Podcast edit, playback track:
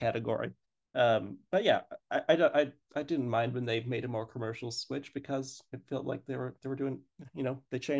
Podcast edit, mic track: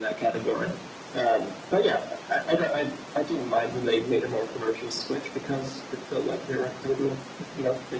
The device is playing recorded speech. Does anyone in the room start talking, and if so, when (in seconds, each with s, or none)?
none